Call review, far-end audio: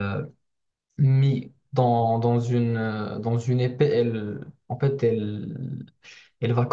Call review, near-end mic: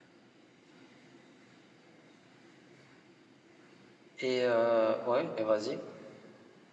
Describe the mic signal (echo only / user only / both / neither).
user only